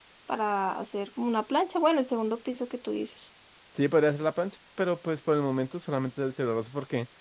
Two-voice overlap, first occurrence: none

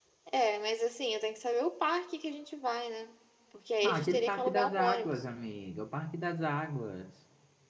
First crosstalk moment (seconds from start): 3.8 s

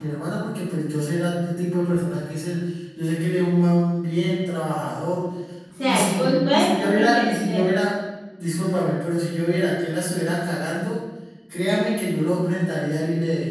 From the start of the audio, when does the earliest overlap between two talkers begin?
5.8 s

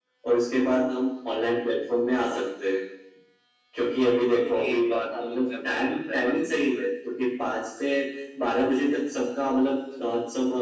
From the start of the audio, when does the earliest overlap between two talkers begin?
4.4 s

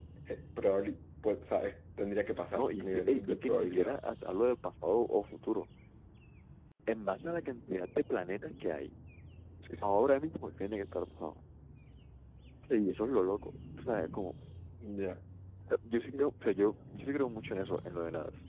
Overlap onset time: 2.5 s

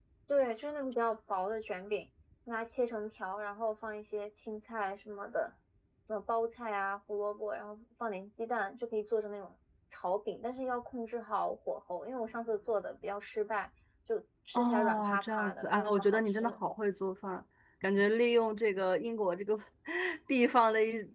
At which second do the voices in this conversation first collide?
14.5 s

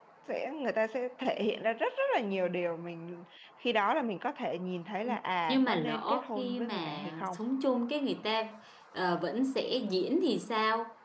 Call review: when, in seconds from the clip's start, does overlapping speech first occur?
5.5 s

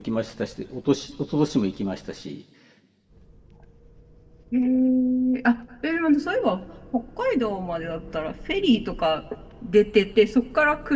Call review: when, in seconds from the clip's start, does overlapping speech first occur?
none

